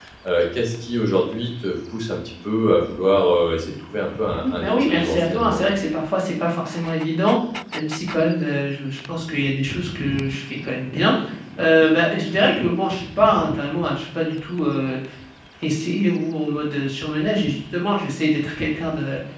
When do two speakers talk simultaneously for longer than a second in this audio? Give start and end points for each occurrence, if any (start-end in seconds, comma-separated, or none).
4.3-5.6